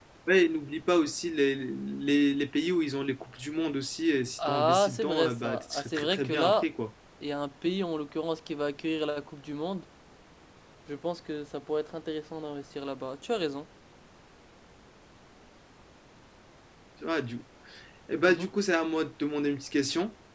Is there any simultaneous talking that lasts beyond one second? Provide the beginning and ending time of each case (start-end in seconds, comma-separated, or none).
4.4-6.6